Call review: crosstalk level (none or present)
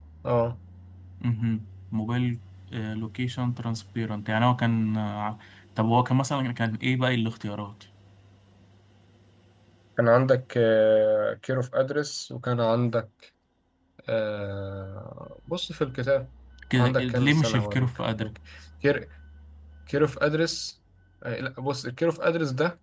present